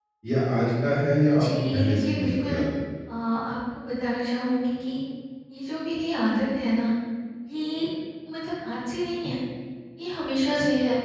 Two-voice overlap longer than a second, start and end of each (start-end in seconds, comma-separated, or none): 1.3-2.5